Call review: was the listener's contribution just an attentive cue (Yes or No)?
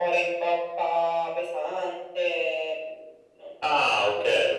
No